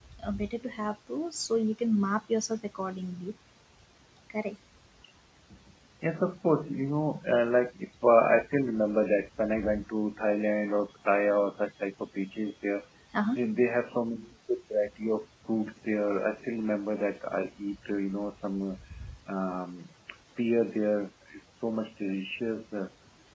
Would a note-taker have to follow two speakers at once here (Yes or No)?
No